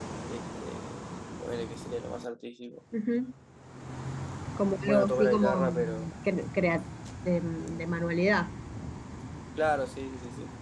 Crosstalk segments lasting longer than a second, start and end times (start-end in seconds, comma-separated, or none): 4.8-6.1